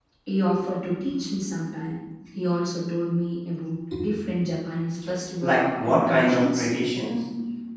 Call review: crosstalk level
present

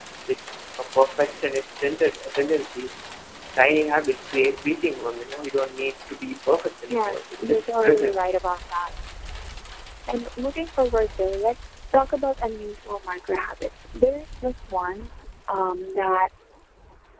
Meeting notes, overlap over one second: present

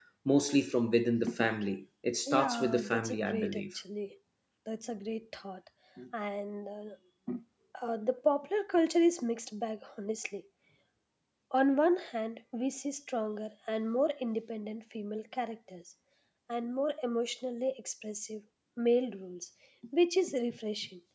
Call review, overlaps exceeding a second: present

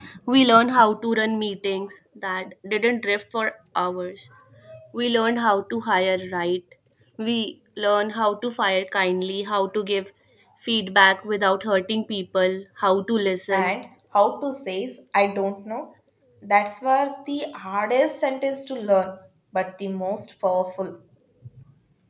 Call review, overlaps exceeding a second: none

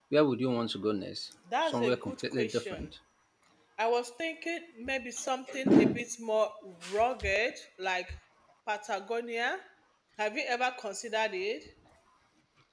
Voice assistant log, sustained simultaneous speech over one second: present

